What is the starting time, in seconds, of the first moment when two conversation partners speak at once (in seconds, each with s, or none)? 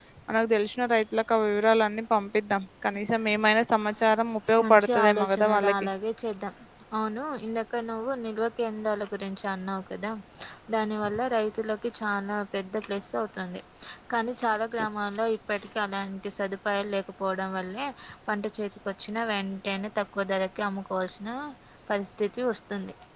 4.6 s